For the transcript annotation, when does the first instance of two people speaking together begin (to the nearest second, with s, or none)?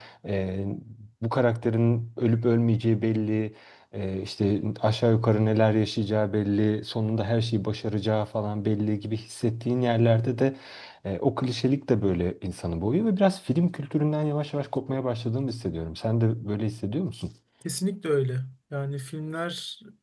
none